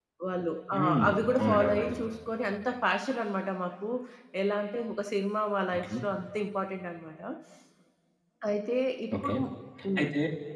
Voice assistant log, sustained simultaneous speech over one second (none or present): present